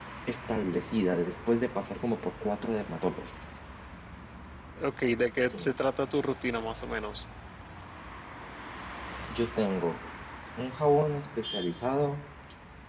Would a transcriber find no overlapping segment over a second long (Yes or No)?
Yes